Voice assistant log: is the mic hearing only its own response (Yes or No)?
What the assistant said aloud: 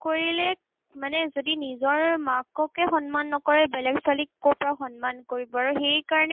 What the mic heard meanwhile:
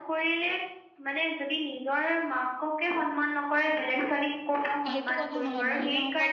No